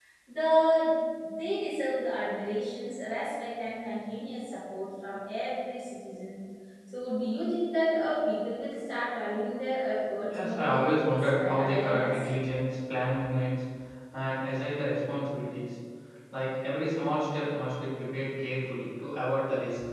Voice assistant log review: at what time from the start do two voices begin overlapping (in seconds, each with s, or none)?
10.3 s